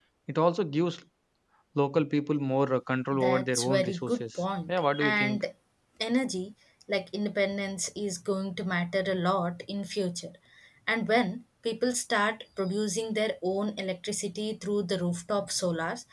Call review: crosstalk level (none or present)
present